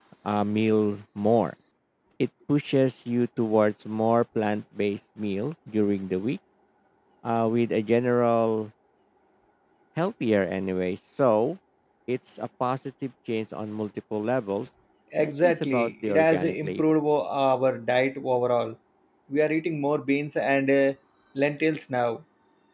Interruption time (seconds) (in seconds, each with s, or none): 15.2 s